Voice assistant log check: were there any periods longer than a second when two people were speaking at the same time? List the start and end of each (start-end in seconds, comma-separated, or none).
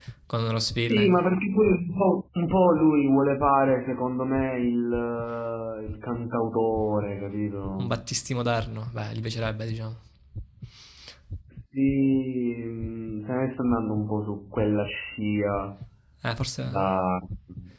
none